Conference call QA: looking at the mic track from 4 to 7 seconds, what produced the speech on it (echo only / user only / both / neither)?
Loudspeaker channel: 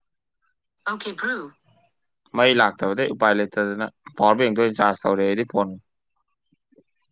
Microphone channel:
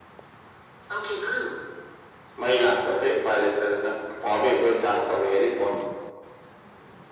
echo only